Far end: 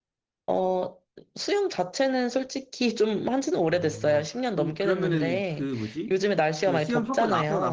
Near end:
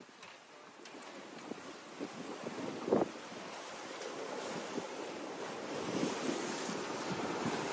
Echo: none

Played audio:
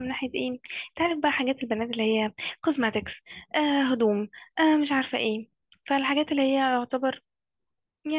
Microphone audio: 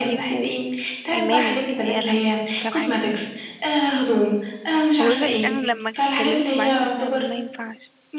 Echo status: present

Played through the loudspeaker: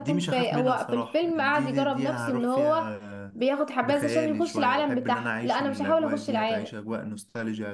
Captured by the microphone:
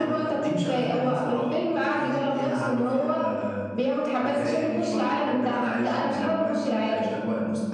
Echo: present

